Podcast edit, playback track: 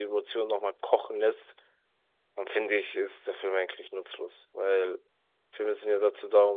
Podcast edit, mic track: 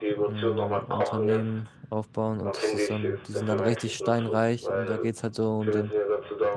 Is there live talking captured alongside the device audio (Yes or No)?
Yes